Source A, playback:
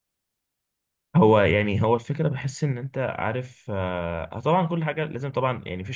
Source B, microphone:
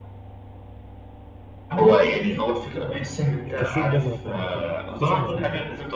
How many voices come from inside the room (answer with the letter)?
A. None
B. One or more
B